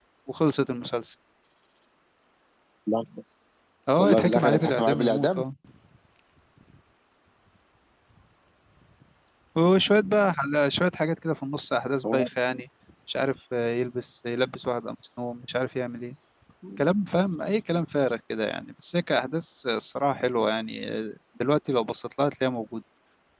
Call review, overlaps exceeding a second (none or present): present